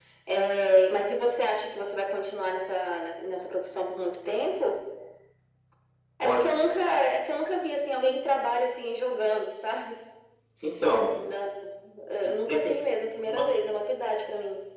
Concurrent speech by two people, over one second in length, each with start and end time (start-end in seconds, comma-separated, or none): 12.1-13.6